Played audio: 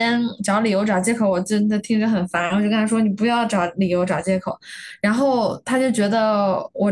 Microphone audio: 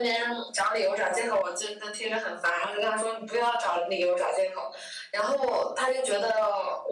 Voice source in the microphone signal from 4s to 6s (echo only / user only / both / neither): echo only